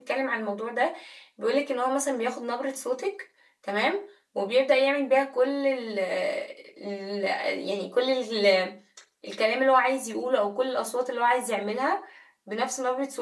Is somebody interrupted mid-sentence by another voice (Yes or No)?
No